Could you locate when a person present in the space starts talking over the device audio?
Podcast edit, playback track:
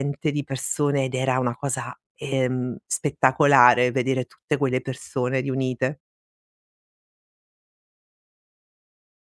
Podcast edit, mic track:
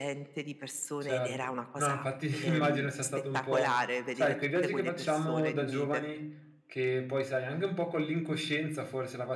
1.0 s

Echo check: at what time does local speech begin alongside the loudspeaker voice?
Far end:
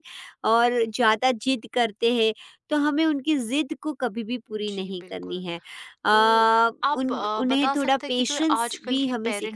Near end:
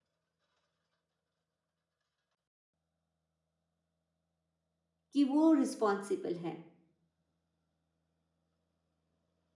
5.1 s

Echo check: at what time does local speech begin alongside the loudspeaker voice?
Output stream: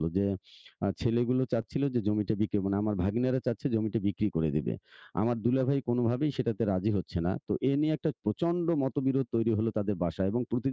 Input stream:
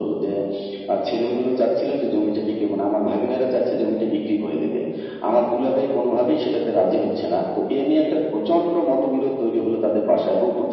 none

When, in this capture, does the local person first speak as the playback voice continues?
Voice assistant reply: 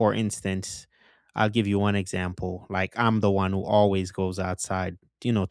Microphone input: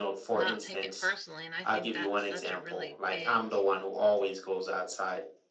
0.3 s

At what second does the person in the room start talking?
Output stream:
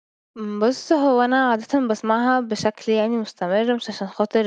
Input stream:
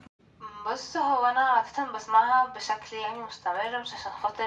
none

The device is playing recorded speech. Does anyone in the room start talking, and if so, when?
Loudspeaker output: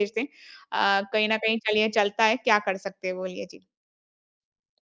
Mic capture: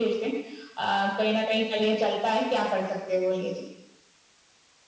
none

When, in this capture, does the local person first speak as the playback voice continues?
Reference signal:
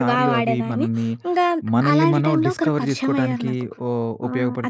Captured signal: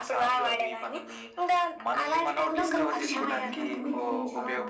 2.5 s

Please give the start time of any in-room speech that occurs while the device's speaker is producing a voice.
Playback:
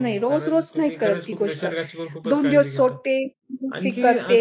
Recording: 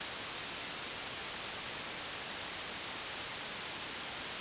none

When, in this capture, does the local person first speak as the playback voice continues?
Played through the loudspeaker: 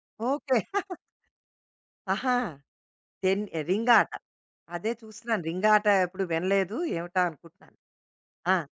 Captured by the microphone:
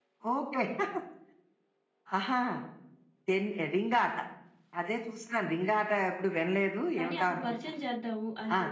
7.0 s

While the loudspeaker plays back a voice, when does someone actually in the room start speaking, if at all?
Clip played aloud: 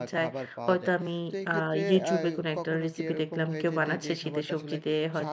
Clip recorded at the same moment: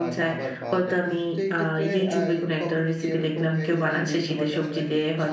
none

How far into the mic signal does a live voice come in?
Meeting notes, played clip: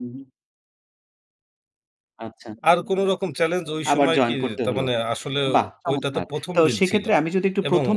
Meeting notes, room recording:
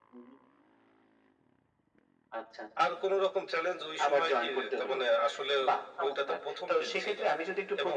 none

